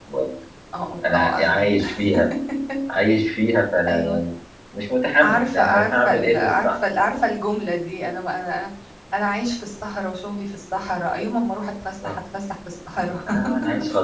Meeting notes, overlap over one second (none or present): present